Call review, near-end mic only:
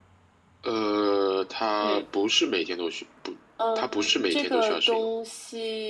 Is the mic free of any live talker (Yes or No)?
Yes